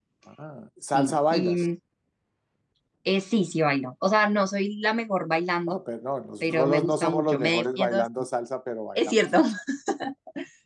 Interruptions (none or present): present